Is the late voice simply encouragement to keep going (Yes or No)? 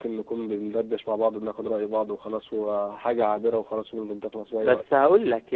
No